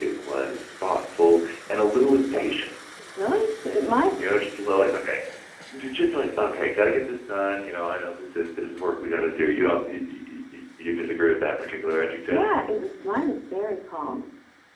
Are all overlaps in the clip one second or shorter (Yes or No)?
Yes